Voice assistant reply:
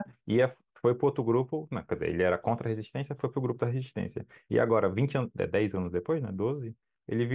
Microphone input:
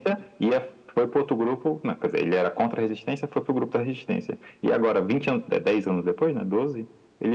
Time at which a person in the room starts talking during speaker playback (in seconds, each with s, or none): none